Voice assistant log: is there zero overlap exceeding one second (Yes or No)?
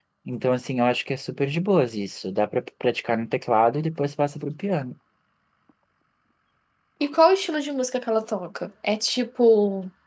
Yes